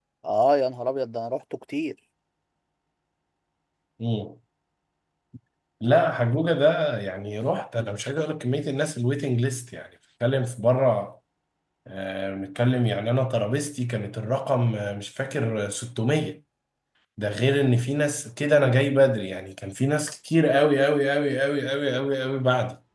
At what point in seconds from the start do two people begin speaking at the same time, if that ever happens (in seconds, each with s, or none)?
none